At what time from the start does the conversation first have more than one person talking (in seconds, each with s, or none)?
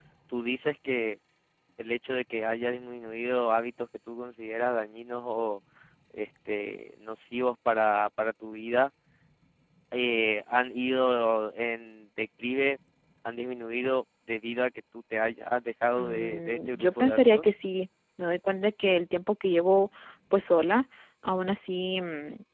16.0 s